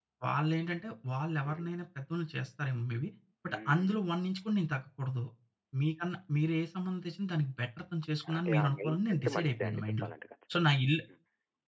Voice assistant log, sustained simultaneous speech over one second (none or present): present